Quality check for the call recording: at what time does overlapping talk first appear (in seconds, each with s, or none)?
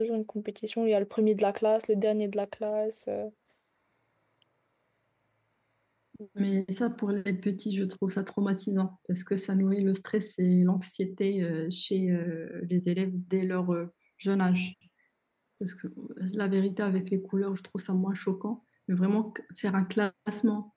none